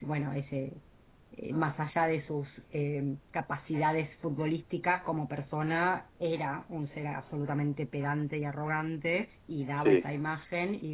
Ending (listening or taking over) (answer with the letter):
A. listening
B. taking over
A